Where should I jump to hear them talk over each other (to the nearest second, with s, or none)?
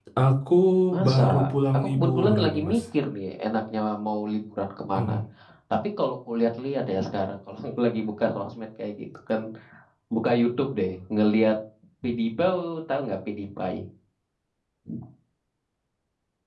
1 s